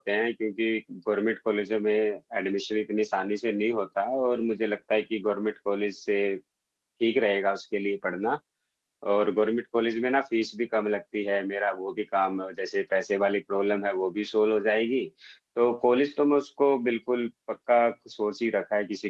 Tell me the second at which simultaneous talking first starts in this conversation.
none

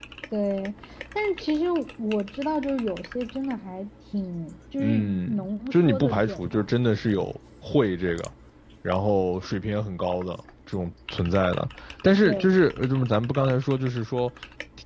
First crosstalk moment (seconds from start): 4.8 s

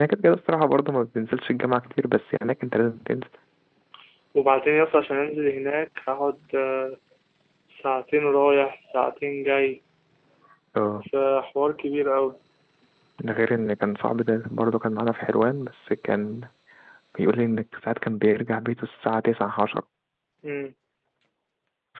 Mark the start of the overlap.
none

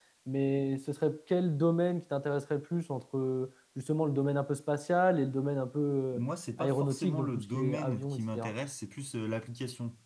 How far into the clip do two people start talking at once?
6.6 s

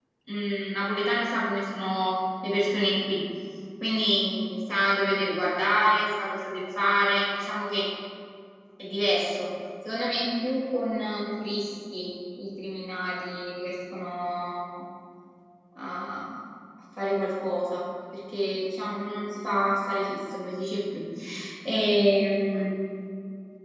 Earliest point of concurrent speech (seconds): none

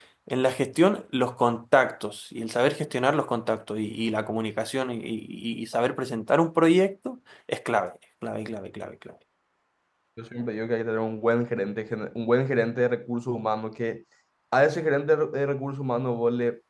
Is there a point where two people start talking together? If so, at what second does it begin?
none

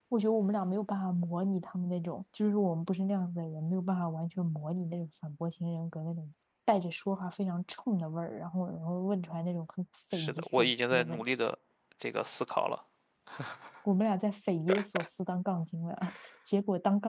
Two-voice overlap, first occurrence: 10.1 s

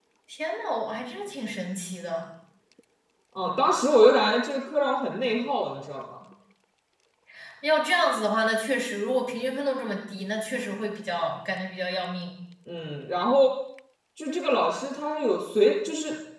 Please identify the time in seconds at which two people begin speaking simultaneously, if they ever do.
none

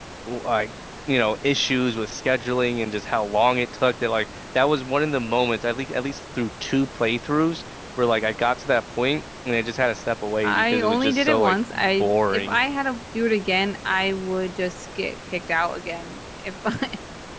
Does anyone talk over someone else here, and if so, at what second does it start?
10.4 s

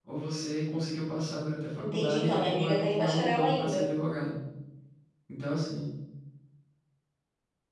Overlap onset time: 1.8 s

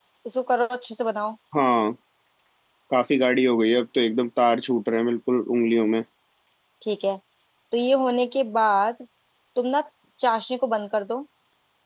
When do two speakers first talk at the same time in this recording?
none

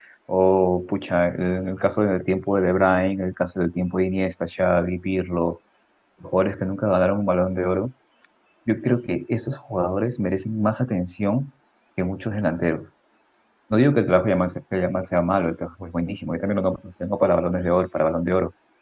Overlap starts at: none

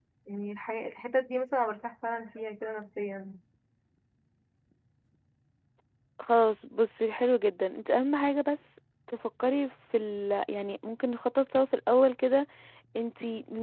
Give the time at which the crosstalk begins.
none

